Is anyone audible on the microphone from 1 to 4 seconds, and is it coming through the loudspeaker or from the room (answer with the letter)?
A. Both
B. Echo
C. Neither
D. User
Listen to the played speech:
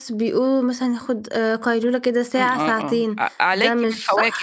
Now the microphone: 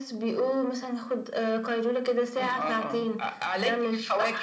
B